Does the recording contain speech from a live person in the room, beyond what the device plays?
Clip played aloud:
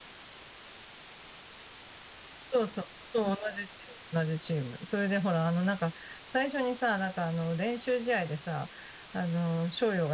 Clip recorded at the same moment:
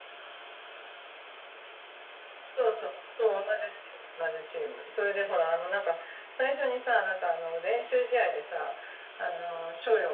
No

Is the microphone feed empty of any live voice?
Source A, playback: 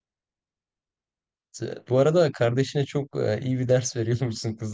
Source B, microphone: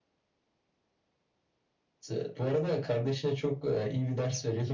Yes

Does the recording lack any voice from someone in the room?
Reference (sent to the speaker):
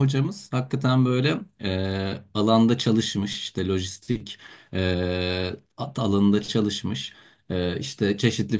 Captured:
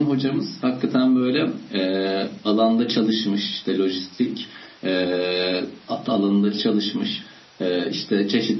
Yes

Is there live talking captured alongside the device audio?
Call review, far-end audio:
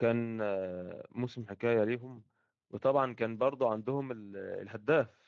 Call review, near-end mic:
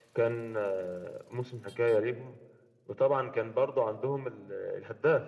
No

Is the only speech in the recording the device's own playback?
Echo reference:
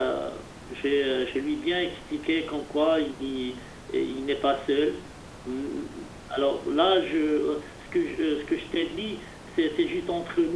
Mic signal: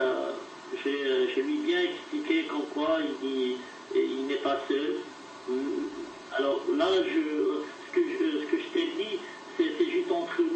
Yes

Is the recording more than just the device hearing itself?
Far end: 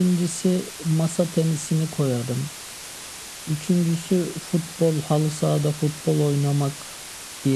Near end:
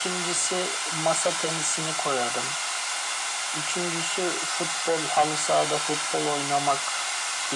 No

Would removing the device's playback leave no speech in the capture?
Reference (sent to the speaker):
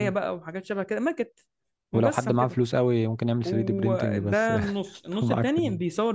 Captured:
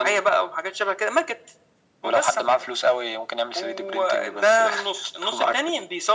Yes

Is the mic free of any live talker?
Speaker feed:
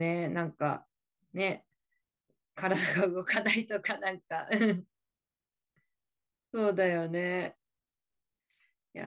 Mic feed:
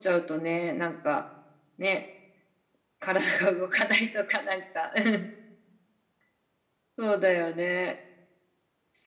Yes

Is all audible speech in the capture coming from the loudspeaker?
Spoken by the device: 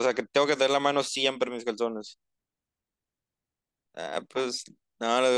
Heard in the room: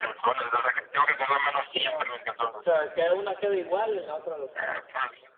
No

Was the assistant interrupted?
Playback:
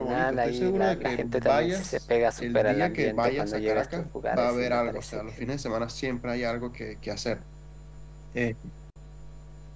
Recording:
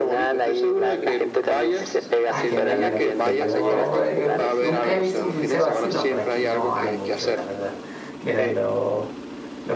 Yes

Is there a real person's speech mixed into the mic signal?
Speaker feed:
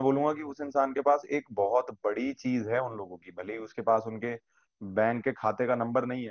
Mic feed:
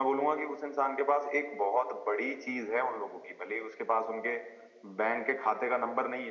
No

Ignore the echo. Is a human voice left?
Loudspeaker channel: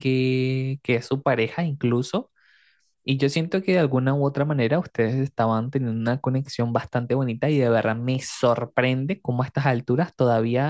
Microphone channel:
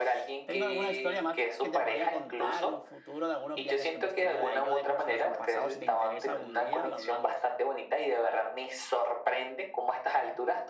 Yes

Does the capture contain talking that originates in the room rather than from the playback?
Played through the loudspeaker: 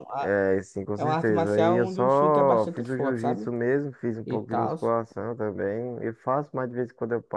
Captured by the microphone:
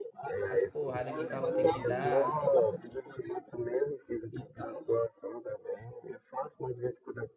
Yes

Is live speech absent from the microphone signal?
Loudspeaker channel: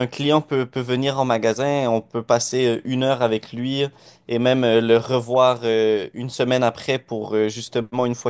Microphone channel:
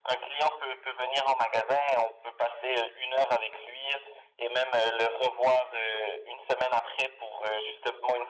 Yes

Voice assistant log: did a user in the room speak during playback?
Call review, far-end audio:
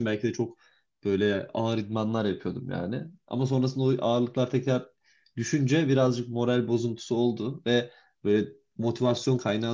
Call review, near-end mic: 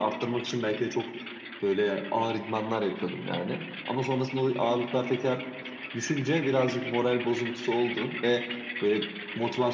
No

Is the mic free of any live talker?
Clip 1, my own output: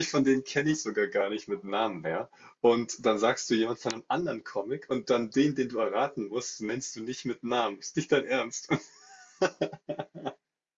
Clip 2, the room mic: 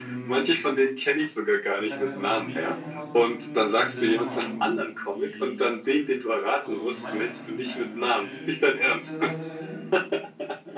No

